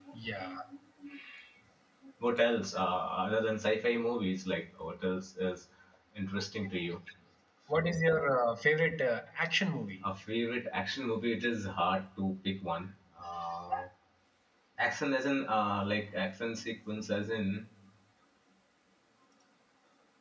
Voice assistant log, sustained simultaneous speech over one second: none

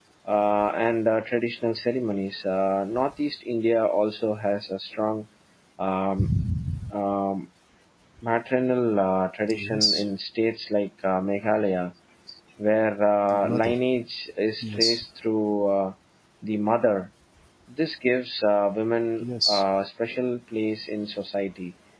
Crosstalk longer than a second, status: none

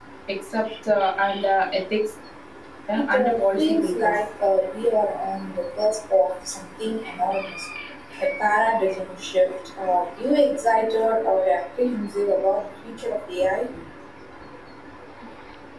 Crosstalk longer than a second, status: present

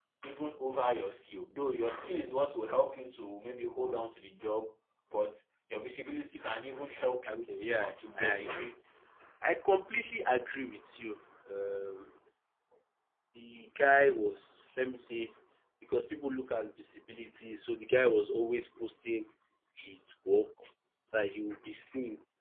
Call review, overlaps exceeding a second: present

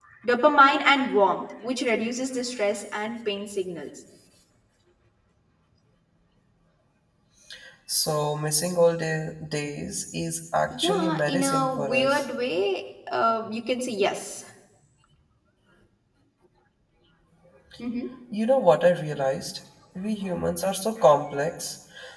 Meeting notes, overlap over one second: present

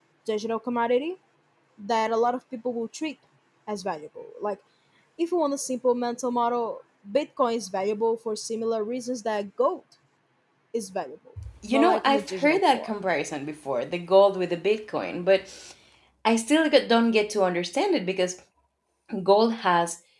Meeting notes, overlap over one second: present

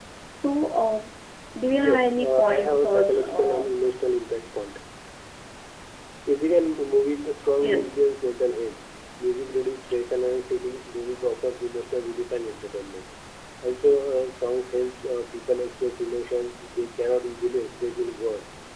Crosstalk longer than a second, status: present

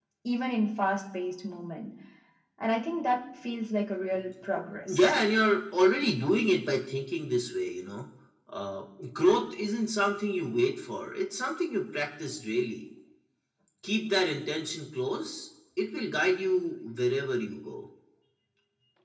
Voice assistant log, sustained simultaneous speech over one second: none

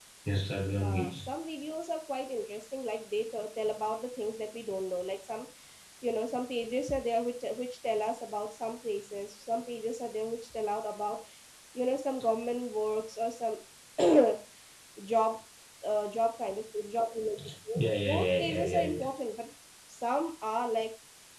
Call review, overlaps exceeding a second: present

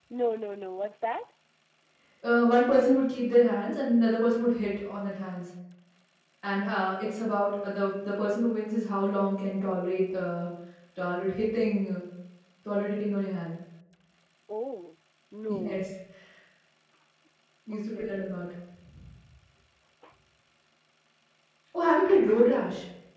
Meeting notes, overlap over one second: none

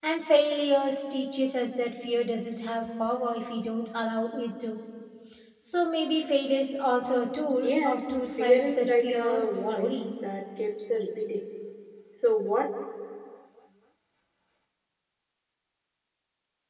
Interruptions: present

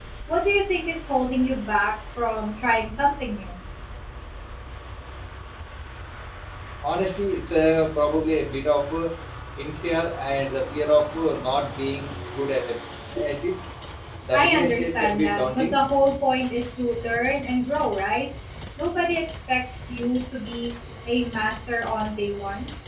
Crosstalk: present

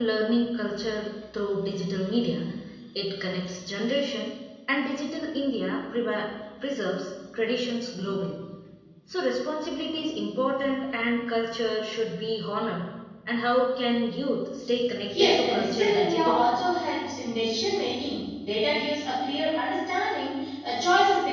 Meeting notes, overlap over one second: present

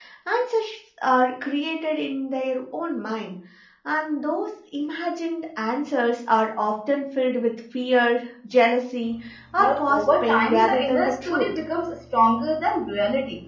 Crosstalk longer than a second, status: present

